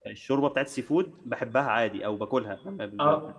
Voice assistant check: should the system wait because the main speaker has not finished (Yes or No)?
Yes